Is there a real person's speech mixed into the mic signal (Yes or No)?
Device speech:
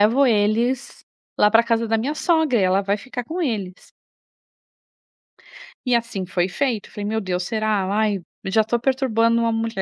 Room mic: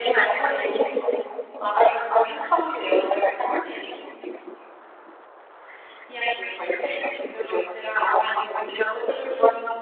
No